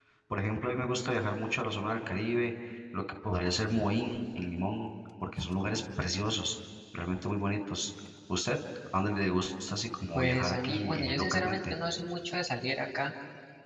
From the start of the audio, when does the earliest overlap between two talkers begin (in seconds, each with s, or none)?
10.2 s